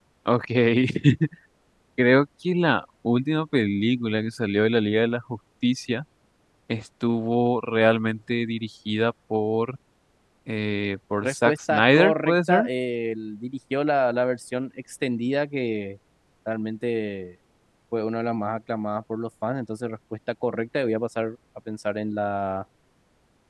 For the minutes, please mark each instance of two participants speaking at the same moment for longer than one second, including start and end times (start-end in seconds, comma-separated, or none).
11.2-12.6